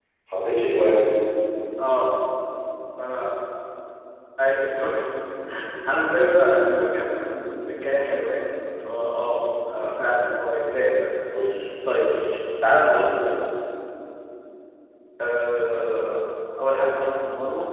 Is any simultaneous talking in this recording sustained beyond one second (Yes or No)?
No